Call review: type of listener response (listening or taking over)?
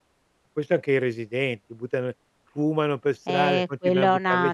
taking over